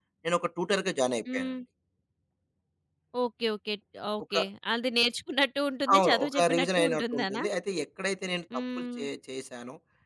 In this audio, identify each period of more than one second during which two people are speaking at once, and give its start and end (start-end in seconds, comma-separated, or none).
6.0-7.4